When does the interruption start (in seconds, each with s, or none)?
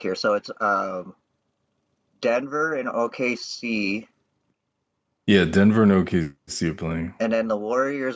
none